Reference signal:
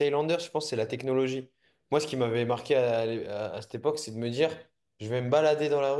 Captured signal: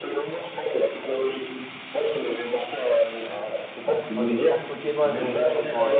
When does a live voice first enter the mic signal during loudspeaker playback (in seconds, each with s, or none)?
4.1 s